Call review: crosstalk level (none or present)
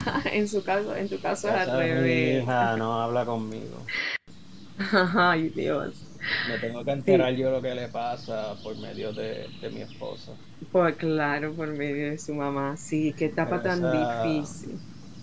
present